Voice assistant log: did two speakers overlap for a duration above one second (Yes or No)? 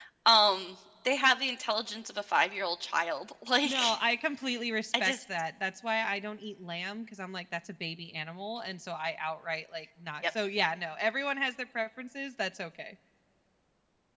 No